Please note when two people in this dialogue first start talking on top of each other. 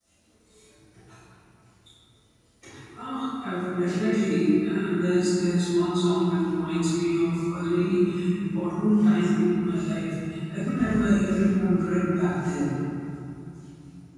none

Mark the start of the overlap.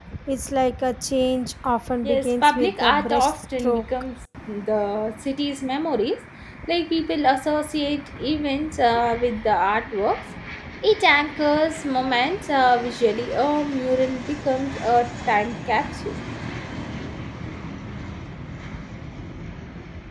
2.0 s

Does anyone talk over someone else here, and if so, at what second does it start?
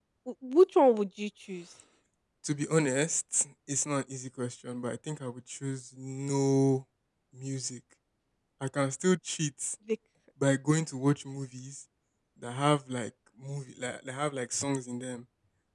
none

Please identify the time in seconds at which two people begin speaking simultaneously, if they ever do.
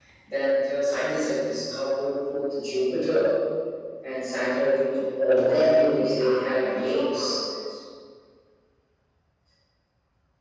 5.4 s

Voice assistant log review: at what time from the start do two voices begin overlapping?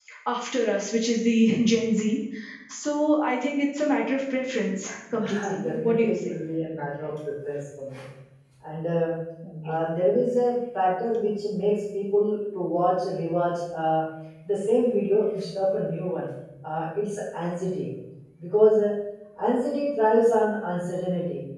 5.1 s

